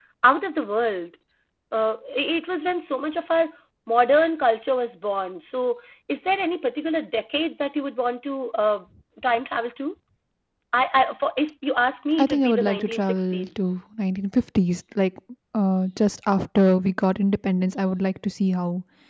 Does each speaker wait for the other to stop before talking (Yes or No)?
No